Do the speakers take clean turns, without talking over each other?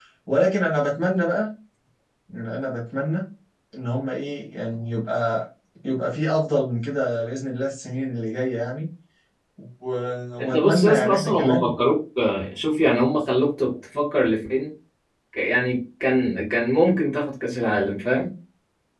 No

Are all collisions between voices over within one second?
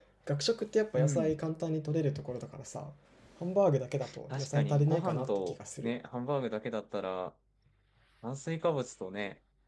No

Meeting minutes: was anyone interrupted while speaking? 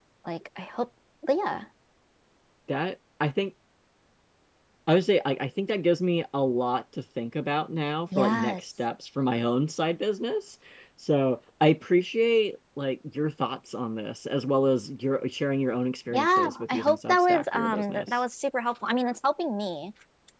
Yes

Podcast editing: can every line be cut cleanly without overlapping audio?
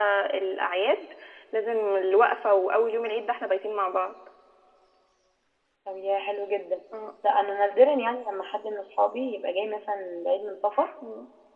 Yes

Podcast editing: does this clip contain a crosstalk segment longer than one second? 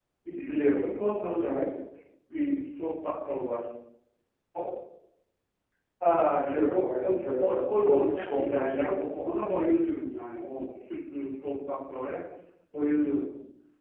Yes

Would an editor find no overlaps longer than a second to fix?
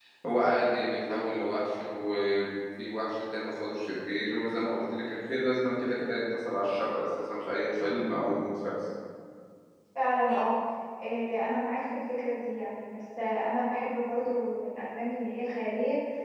Yes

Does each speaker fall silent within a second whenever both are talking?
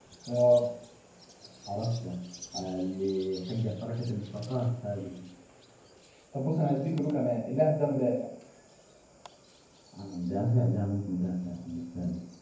Yes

